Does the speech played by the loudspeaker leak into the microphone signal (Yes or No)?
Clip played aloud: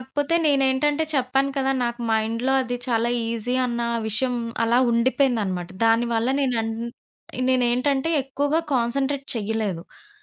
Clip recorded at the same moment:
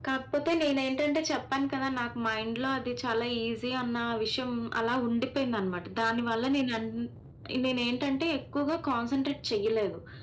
Yes